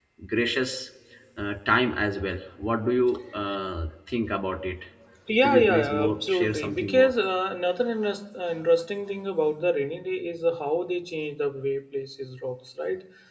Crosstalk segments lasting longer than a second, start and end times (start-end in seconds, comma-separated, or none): 5.4-7.1